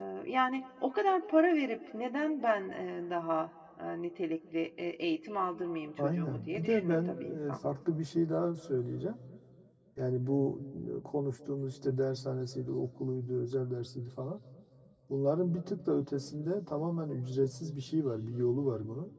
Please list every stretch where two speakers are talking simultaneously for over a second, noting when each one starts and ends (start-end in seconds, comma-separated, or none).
6.0-7.5